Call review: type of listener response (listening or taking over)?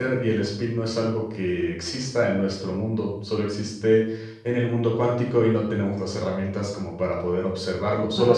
listening